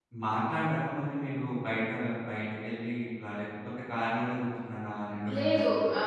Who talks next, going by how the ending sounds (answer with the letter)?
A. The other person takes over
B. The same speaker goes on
A